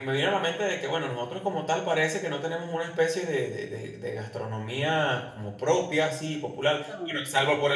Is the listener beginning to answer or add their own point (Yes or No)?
No